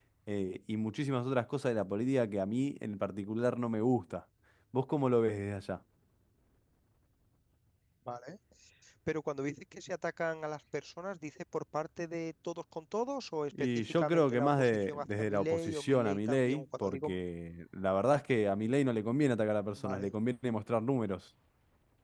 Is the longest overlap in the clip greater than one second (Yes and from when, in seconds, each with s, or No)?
Yes, from 13.6 s